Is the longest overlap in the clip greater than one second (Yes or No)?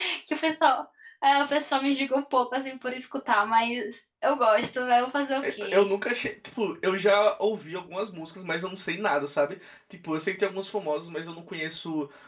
No